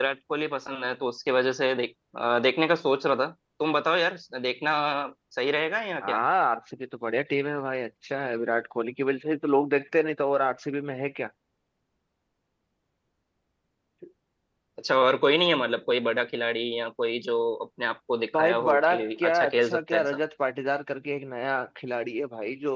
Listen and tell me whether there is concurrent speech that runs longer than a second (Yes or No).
Yes